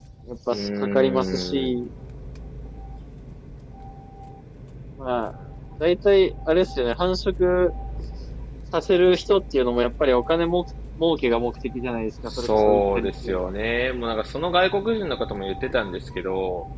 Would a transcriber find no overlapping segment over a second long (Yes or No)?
No